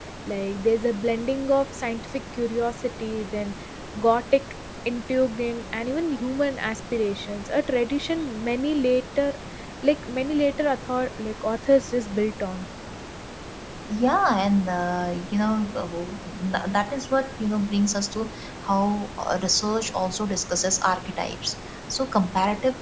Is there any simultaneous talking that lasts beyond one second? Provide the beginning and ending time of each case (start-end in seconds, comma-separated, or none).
none